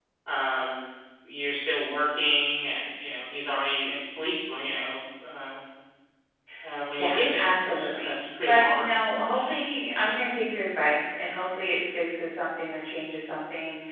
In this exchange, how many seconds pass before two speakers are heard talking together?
7.0 s

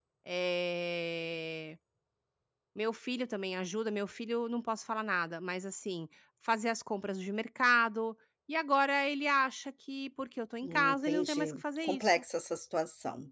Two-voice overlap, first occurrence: 10.6 s

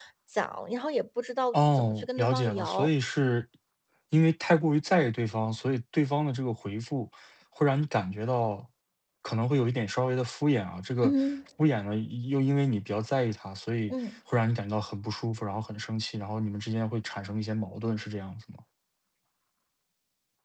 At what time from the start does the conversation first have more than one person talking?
1.5 s

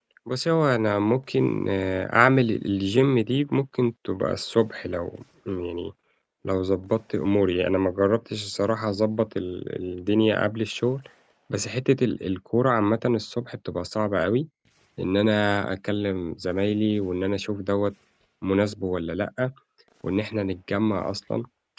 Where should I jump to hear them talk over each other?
none

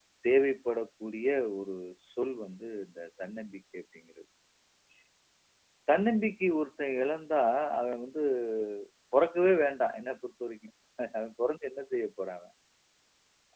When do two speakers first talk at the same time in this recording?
none

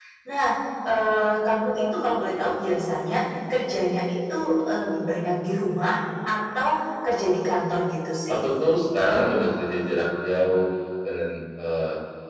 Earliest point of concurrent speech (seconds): none

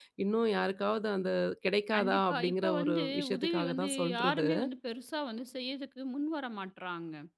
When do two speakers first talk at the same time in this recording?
1.9 s

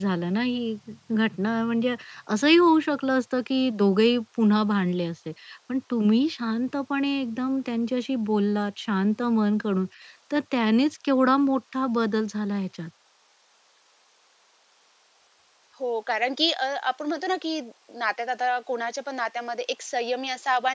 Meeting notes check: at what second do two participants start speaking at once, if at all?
none

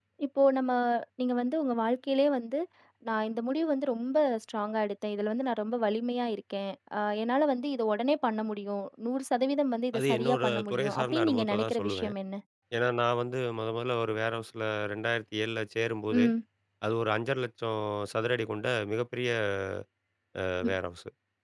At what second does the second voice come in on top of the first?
9.9 s

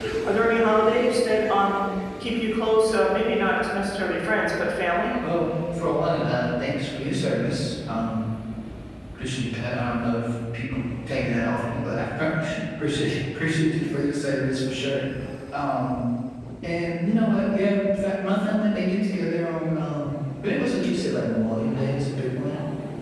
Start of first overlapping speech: none

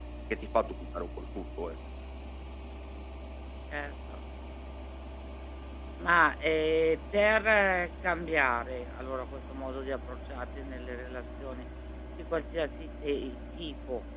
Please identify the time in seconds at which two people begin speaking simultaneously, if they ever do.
none

